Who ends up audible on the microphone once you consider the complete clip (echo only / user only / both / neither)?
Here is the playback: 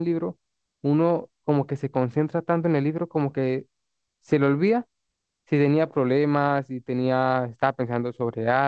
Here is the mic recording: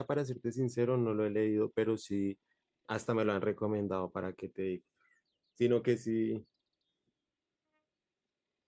user only